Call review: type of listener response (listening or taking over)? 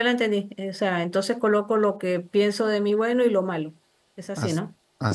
taking over